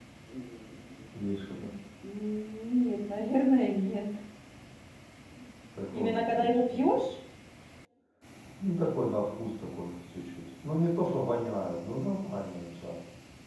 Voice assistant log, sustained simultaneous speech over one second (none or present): present